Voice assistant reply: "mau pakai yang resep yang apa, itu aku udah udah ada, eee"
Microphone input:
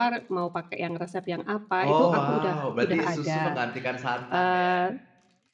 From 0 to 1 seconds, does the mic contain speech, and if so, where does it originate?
echo only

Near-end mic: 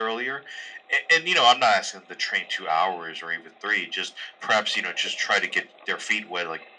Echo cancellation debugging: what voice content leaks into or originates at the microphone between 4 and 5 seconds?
echo only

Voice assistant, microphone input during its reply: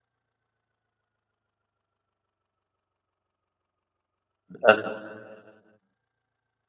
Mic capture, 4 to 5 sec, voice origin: user only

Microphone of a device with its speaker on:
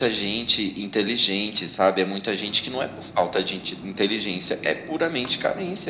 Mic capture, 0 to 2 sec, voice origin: echo only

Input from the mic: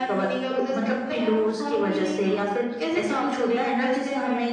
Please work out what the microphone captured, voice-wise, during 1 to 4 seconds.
echo only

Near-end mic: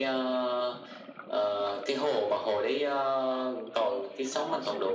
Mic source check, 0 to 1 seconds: echo only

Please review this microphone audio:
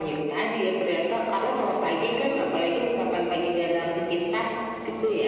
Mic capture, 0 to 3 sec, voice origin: echo only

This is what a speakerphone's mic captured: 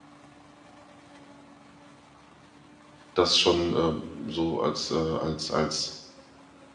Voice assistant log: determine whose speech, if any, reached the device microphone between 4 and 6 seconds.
user only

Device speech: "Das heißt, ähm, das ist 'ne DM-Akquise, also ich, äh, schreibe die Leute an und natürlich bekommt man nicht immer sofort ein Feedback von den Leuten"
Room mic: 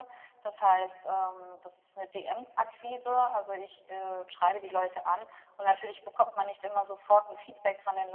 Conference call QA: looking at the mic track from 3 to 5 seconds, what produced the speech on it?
echo only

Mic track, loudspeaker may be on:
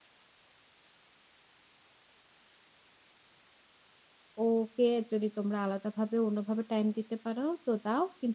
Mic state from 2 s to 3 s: neither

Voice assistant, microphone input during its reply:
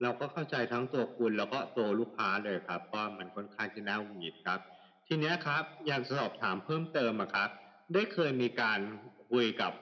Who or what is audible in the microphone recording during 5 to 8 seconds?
echo only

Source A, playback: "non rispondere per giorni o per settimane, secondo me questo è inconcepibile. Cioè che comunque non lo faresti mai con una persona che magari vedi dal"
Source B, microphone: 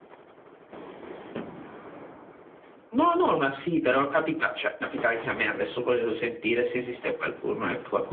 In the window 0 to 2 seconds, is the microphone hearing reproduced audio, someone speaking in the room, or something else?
neither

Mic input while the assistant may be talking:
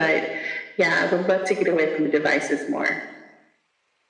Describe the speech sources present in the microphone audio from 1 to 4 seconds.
echo only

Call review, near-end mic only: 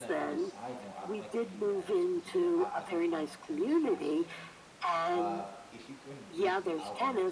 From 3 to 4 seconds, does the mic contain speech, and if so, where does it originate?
both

